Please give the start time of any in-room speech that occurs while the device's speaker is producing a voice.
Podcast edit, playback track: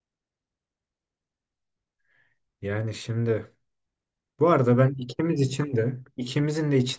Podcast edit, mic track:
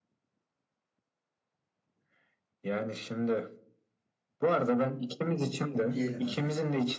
5.9 s

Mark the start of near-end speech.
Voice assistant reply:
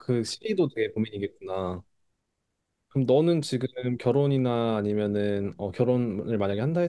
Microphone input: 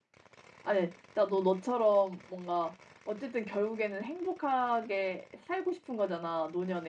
0.6 s

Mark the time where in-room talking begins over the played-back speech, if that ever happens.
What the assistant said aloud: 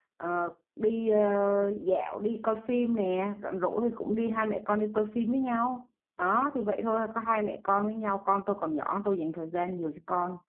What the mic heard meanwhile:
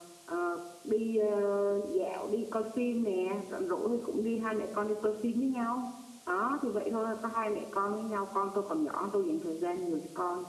none

